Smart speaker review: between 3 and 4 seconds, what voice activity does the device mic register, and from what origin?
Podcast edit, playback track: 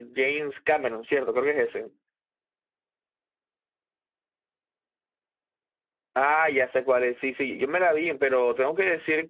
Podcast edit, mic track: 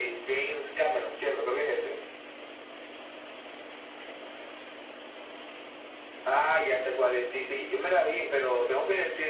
neither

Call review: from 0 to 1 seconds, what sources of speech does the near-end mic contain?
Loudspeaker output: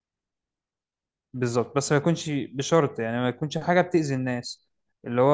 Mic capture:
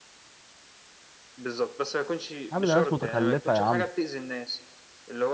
neither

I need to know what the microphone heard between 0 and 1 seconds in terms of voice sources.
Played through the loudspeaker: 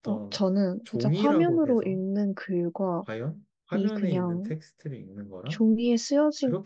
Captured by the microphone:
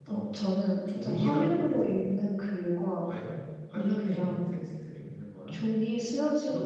echo only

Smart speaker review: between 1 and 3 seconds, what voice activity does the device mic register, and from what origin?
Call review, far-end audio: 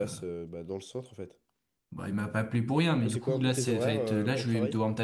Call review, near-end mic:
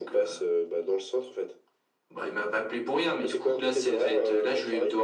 echo only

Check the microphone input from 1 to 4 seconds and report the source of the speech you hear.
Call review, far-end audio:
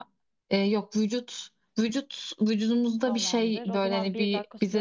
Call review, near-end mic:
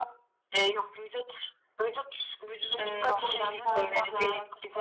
both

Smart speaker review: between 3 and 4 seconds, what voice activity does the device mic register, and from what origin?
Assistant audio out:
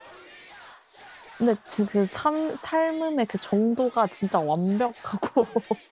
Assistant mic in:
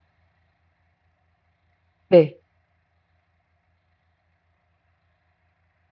neither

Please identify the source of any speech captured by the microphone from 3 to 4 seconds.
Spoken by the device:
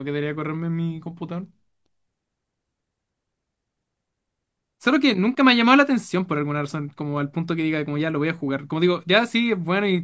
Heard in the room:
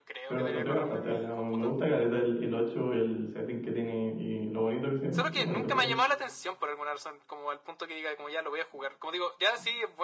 user only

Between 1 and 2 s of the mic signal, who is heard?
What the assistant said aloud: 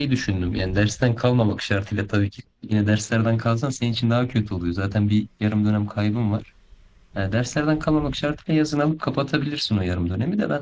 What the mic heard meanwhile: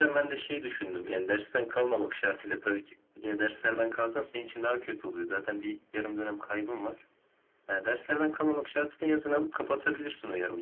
echo only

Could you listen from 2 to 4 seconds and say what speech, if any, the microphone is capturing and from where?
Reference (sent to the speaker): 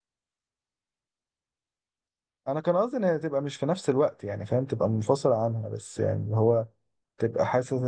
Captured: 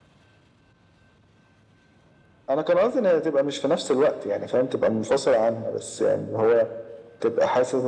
echo only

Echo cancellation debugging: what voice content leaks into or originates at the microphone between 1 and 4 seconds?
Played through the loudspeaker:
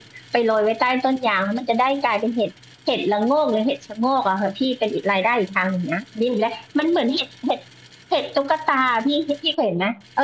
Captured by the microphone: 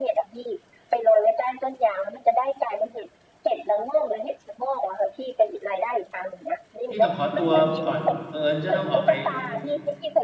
echo only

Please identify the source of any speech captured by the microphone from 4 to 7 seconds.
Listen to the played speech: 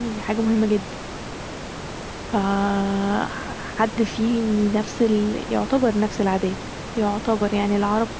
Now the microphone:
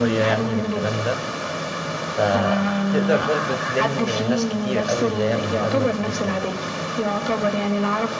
both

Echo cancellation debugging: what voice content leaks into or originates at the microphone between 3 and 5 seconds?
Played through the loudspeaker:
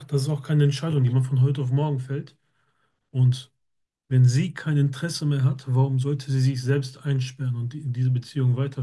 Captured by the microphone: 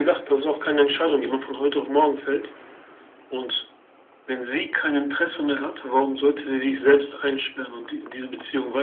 echo only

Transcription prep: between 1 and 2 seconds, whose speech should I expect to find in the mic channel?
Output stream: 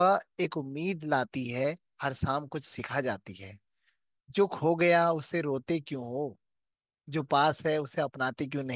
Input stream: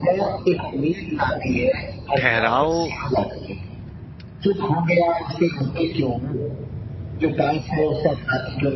echo only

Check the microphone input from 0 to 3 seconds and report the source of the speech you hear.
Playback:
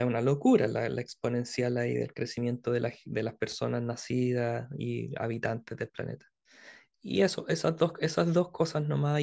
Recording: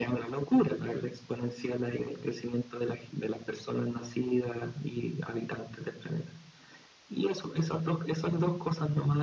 echo only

